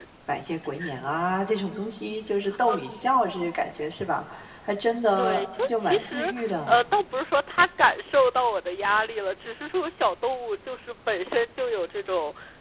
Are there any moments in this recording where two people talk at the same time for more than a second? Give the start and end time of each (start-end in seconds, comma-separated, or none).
5.2-6.8